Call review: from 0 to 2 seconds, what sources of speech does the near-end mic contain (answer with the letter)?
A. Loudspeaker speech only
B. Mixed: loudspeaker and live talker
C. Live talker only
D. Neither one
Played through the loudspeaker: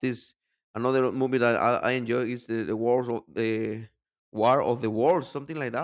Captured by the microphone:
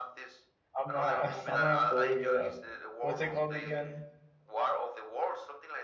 B